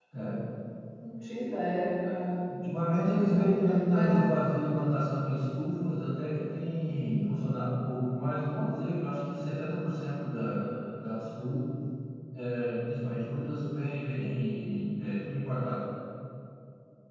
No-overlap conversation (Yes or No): No